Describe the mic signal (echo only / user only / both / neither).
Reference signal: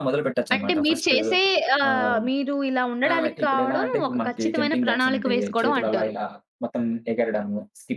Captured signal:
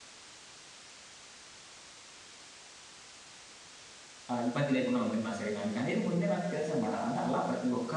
user only